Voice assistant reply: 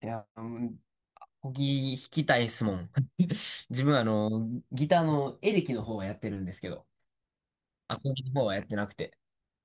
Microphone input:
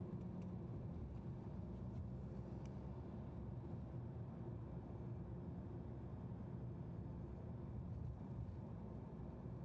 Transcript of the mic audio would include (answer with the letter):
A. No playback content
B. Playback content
A